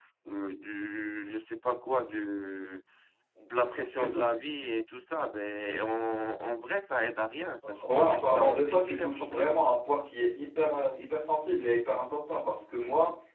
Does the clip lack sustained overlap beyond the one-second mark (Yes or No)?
No